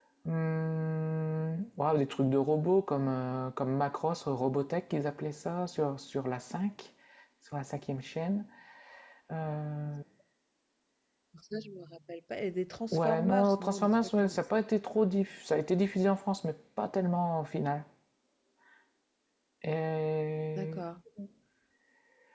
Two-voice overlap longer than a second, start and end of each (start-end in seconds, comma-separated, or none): 12.9-14.4